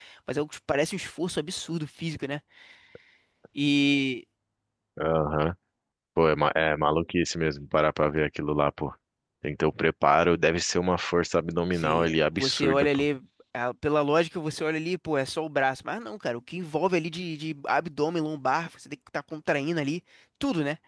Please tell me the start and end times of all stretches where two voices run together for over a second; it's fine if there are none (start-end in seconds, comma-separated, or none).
11.7-13.0